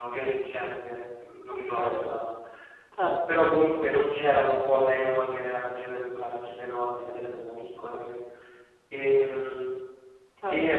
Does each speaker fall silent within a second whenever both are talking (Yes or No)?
Yes